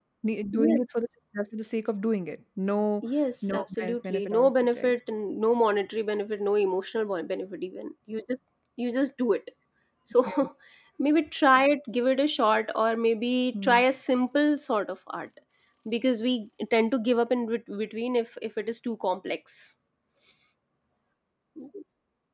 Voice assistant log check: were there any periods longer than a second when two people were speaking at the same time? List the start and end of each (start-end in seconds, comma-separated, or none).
3.5-4.9